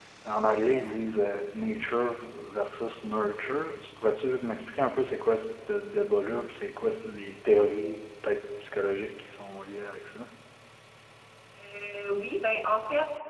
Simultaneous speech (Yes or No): No